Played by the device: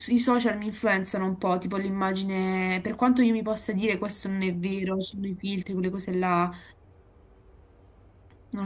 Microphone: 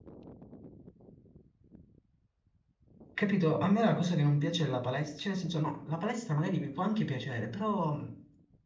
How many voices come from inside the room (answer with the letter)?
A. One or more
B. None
A